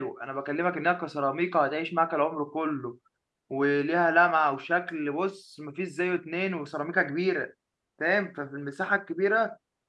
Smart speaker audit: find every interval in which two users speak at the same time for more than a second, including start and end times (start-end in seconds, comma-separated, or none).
none